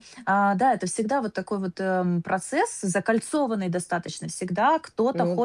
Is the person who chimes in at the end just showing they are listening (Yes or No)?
Yes